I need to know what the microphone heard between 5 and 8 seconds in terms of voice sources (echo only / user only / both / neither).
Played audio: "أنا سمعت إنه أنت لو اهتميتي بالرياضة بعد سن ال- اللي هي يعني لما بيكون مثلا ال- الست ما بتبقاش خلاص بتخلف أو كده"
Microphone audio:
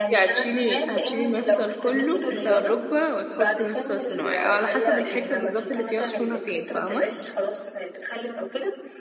both